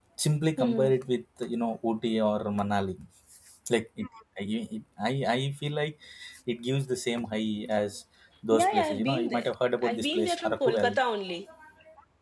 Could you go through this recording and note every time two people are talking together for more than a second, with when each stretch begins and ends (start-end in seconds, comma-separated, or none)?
8.5-11.0